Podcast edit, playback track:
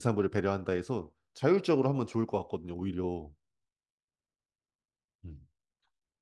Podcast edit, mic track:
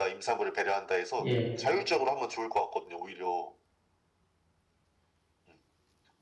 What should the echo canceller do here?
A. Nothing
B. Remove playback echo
B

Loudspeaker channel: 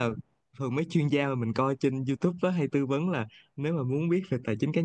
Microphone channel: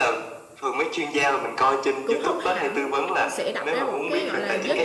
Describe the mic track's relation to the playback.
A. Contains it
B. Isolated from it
A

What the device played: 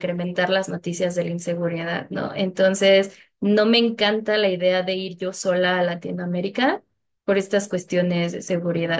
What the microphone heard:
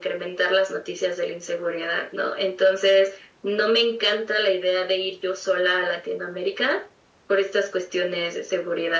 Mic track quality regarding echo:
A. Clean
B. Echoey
B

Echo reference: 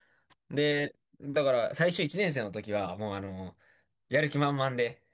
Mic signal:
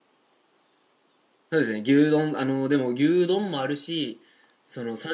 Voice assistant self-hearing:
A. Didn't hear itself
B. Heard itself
A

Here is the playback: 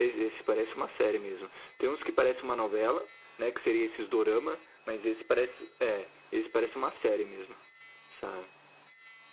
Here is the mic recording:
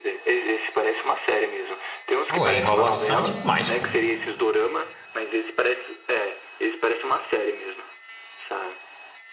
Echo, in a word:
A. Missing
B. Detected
B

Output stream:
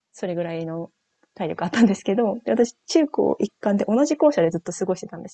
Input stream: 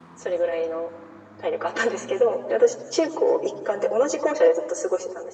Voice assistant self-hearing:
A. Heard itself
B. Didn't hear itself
A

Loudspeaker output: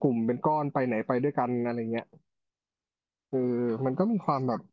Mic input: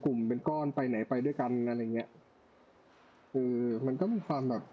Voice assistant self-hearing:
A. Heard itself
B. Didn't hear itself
A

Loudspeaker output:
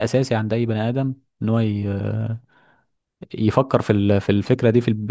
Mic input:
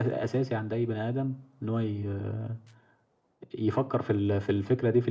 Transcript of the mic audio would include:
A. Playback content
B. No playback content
A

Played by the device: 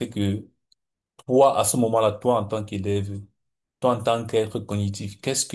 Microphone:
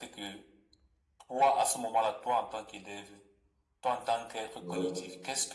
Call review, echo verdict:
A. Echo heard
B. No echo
A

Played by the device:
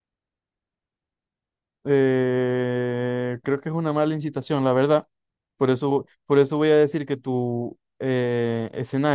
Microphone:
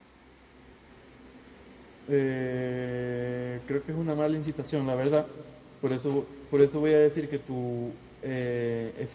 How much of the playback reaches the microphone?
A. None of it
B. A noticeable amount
B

